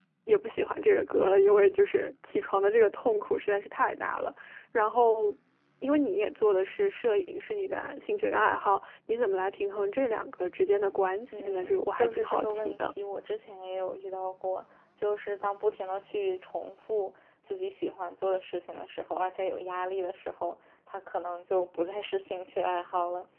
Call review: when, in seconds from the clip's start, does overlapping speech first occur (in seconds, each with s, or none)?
11.3 s